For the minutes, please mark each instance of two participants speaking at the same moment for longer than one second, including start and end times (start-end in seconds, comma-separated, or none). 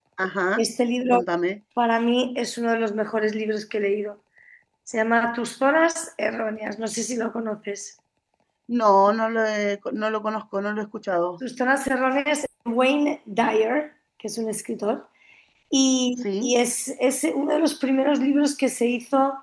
none